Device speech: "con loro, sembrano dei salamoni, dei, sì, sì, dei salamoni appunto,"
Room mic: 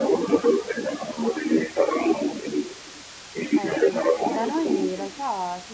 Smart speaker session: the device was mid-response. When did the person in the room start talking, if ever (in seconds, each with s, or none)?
3.5 s